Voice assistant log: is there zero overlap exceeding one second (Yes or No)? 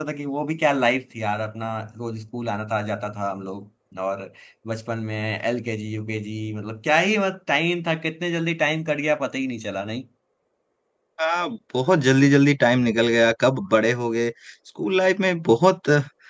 Yes